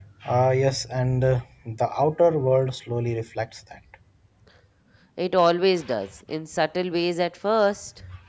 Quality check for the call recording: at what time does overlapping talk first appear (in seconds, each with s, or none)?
none